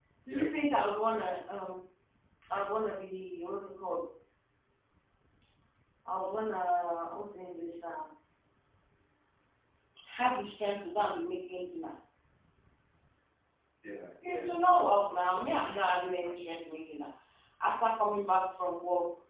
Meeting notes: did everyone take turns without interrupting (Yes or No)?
No